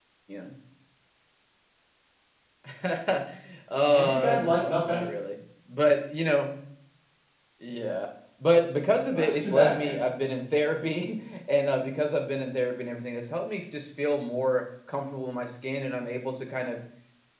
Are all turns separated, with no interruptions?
No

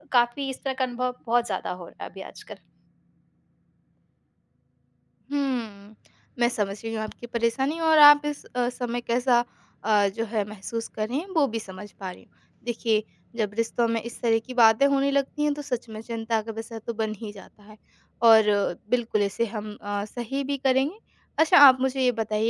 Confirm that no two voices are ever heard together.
Yes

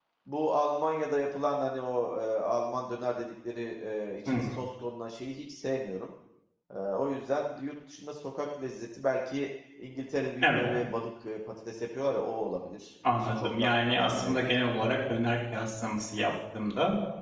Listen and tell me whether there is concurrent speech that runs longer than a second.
Yes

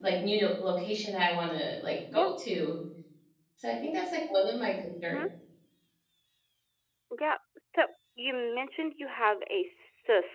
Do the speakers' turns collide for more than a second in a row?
No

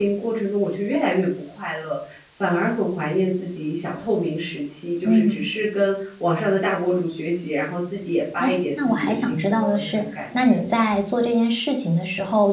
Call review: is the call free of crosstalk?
No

